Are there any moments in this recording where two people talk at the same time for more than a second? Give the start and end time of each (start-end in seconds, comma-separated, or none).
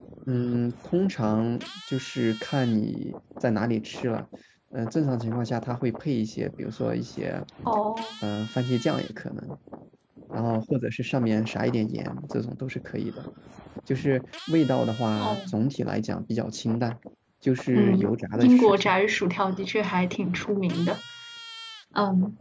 17.7-18.9